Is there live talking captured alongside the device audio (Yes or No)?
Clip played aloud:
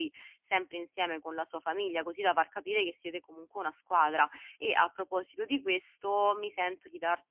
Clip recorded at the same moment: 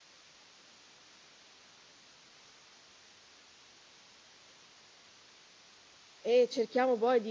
Yes